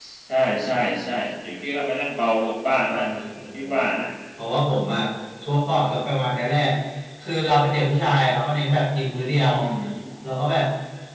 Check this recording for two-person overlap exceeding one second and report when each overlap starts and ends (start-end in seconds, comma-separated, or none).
none